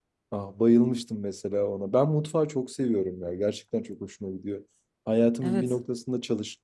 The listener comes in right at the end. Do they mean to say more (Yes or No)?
No